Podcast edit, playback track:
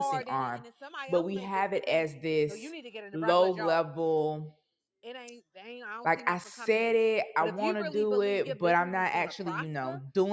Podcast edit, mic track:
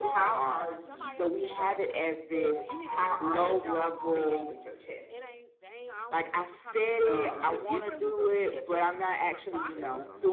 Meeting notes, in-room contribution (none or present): present